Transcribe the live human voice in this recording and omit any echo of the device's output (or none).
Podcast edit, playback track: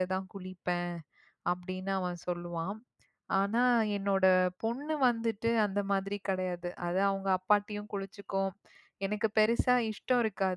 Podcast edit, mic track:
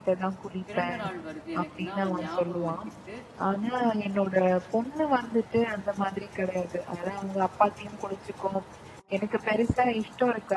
பிறந்த நாள் வருது எனக்குன்னா, அவன் ஞாபகம் வச்சுக்கிட்டு